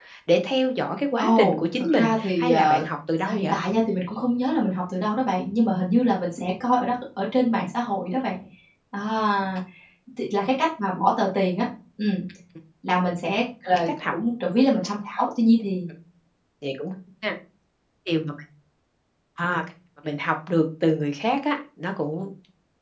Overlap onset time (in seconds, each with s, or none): 1.2 s